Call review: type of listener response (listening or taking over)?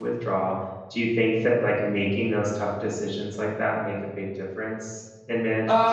taking over